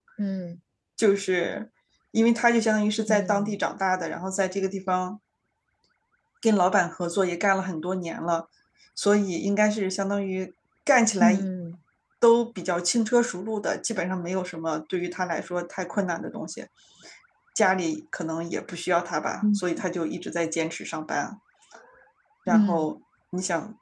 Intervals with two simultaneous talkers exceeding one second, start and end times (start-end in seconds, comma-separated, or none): none